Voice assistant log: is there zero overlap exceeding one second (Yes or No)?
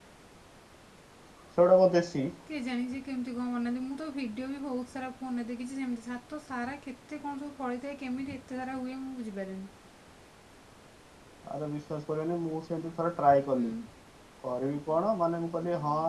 Yes